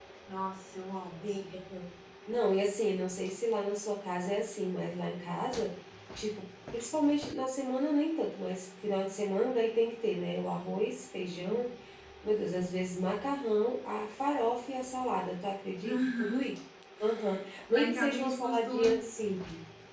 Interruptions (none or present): present